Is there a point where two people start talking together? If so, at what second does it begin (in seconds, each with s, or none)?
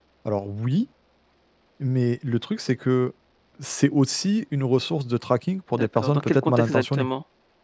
5.7 s